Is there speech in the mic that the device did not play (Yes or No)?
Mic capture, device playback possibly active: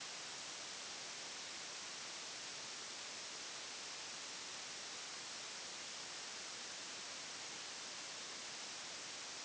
No